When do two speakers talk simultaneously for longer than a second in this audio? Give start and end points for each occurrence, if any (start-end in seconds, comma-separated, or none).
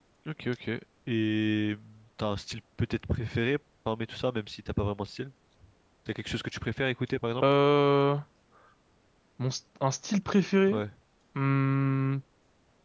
none